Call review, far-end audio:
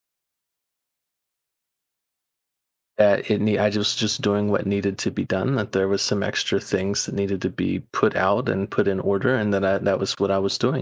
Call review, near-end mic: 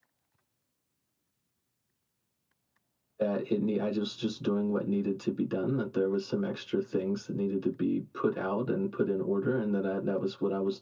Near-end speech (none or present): none